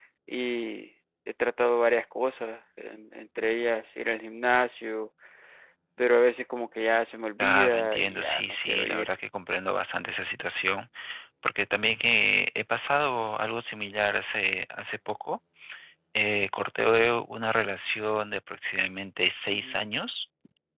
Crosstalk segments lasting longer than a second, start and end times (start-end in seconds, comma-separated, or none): 7.4-9.1